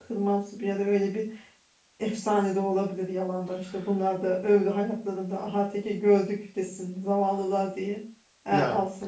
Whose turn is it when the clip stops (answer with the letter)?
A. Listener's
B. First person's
B